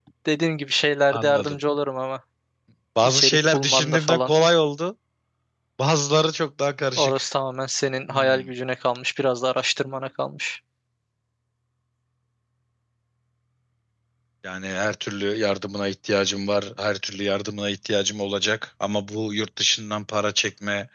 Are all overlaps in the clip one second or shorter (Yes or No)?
No